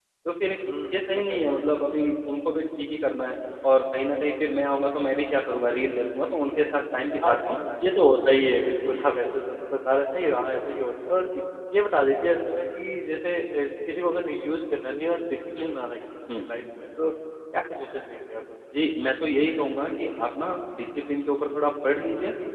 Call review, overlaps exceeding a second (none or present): none